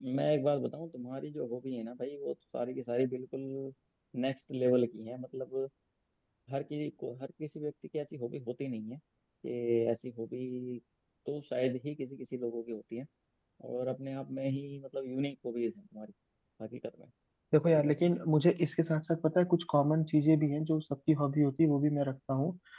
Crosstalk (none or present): none